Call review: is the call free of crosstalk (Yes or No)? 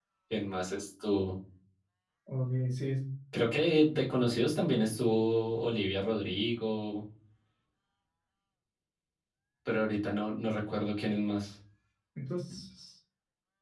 Yes